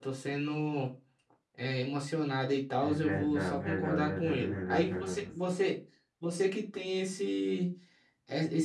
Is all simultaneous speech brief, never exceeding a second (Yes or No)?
No